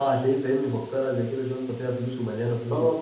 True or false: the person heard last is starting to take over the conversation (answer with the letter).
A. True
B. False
A